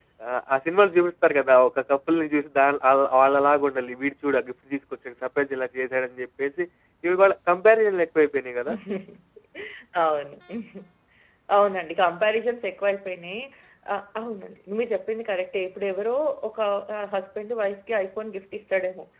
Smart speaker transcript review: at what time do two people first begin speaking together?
none

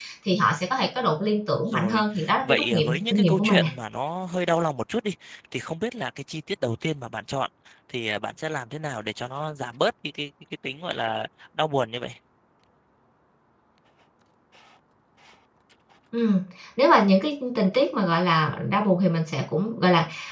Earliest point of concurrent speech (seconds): 2 s

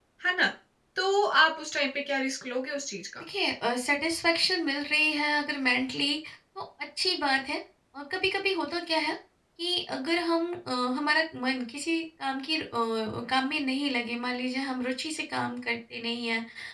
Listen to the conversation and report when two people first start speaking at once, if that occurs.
none

